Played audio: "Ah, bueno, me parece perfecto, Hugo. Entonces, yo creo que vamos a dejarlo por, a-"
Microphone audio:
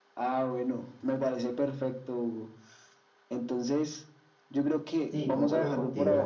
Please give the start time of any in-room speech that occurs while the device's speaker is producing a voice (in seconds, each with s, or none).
5.0 s